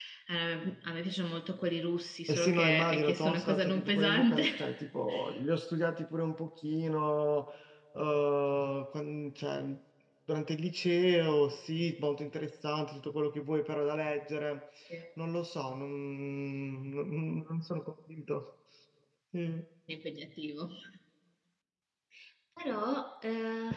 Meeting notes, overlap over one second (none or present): present